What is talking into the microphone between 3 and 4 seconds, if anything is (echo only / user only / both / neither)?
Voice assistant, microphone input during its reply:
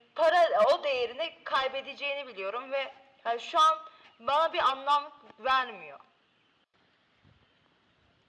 echo only